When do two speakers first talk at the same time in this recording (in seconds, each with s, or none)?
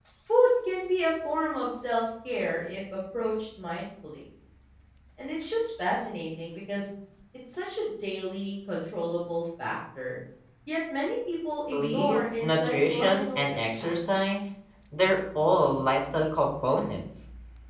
11.7 s